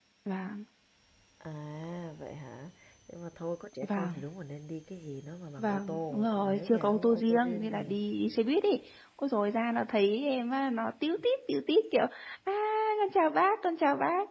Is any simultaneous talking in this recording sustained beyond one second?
Yes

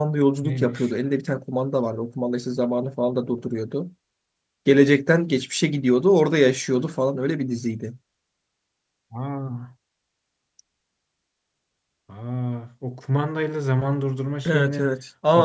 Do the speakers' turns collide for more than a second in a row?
No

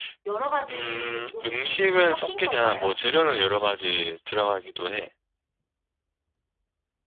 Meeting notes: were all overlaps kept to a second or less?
No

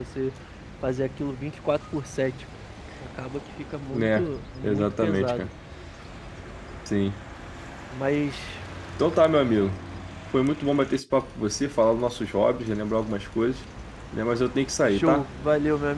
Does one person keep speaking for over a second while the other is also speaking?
Yes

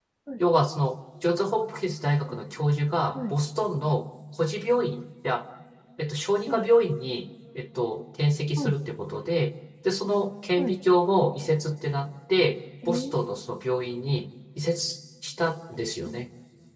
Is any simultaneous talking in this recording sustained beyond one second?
No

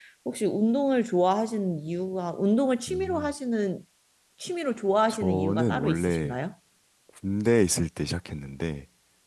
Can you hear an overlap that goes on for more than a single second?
Yes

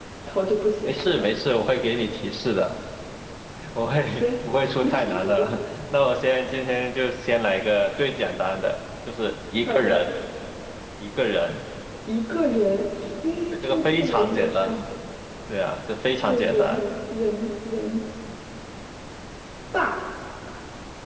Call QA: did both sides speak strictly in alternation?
No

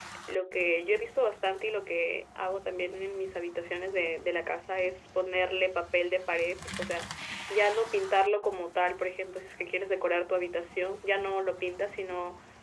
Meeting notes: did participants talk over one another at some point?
No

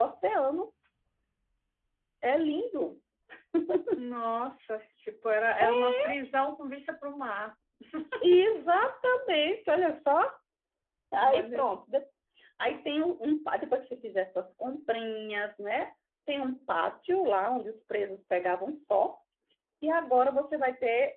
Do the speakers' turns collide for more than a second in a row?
No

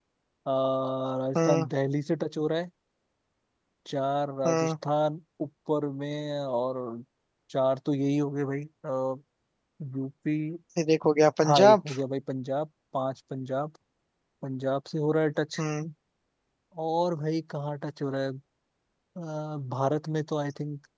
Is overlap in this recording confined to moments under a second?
Yes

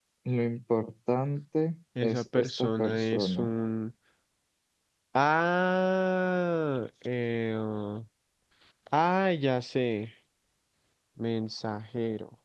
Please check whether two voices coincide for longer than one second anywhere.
Yes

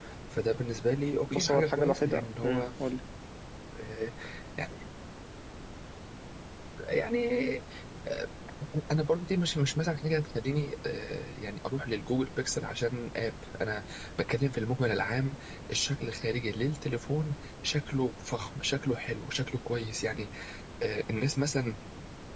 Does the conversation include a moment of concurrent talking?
Yes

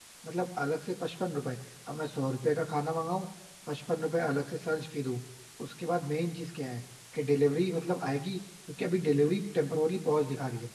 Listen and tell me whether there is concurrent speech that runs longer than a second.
No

